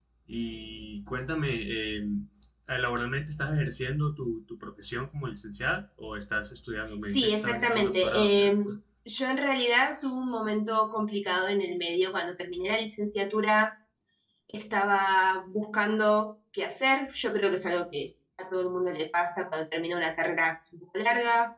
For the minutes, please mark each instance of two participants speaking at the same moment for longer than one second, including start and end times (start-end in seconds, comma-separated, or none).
7.0-8.5